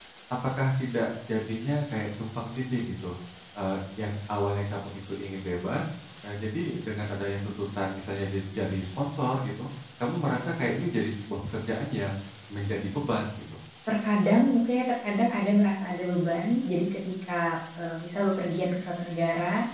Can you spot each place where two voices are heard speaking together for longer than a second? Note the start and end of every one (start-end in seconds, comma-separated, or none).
none